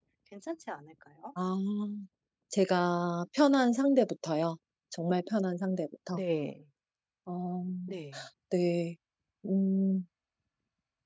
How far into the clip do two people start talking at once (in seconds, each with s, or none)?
none